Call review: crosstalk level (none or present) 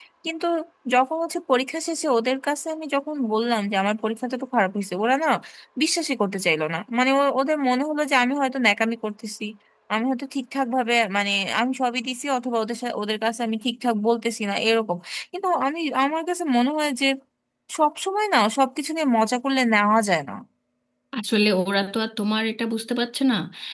none